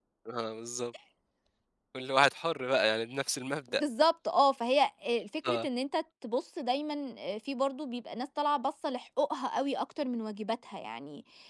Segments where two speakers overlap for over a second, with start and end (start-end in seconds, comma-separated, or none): none